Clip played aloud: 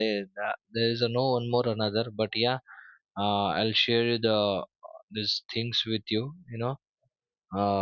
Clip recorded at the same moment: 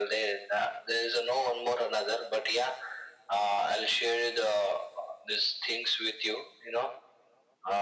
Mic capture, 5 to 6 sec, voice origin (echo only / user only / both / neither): echo only